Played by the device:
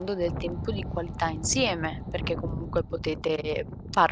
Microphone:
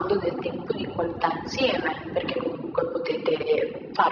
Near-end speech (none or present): none